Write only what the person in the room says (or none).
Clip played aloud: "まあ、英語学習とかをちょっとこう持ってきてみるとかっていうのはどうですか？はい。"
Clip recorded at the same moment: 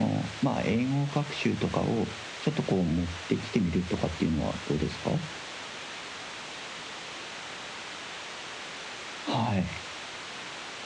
none